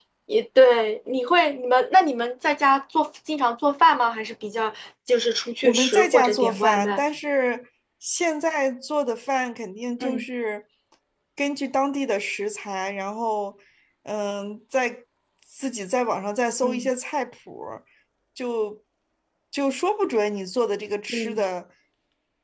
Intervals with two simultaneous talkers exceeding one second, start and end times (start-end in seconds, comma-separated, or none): 5.6-7.0